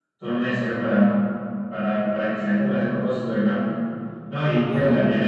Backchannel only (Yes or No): Yes